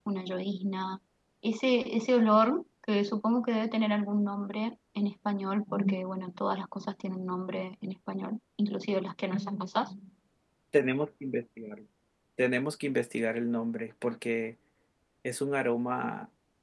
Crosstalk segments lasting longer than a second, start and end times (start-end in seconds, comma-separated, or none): none